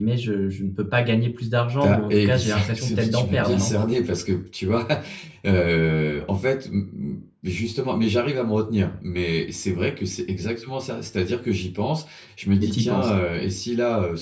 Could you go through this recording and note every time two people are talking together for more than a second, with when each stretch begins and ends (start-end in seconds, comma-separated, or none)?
1.8-3.7